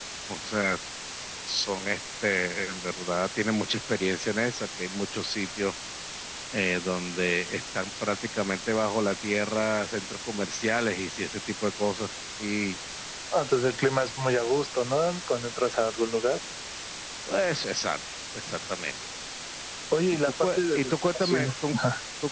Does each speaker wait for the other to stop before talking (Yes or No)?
No